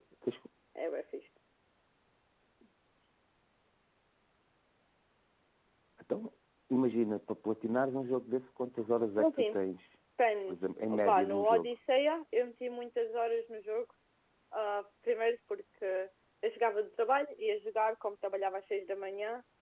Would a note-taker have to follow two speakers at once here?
Yes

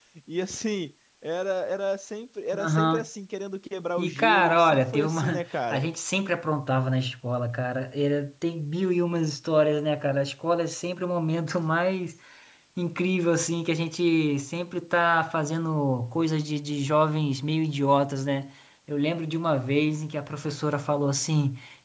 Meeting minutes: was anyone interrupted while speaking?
Yes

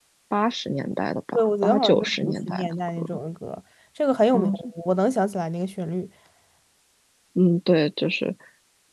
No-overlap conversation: No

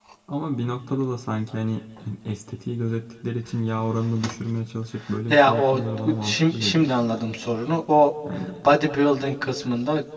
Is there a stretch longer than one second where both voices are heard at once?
Yes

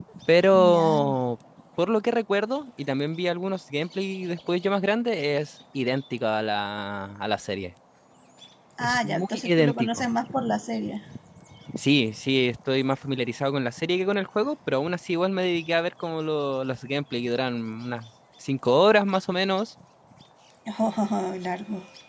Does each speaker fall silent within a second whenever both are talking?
No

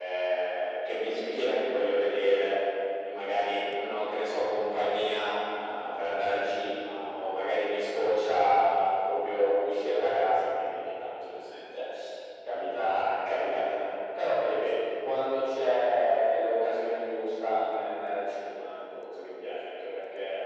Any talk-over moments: No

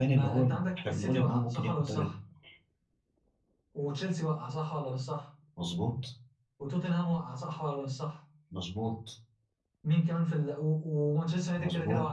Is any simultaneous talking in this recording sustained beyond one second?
Yes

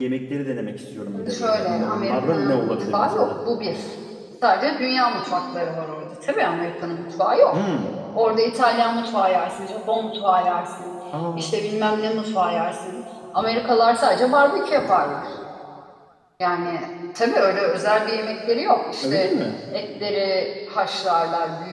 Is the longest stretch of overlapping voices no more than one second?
No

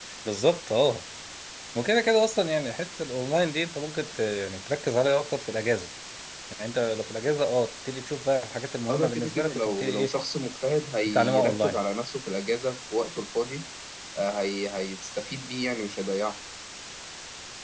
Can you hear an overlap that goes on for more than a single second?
Yes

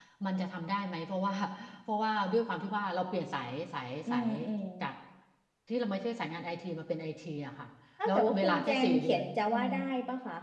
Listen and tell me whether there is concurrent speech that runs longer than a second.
Yes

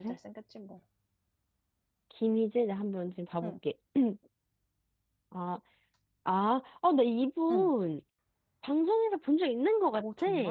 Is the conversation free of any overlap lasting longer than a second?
Yes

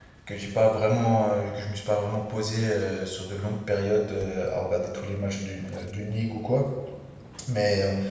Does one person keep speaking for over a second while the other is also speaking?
No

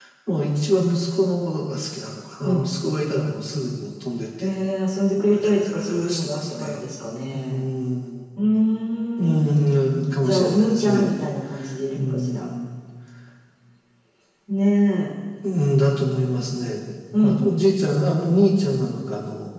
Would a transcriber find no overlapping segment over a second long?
No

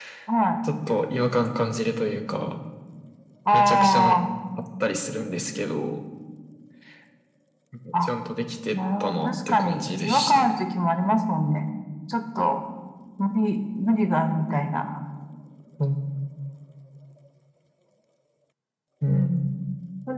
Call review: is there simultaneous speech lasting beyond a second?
Yes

